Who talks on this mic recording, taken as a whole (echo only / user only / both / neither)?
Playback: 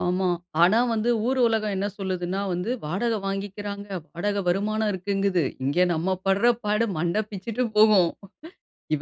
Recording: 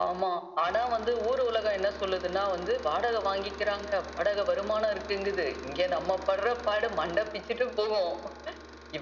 echo only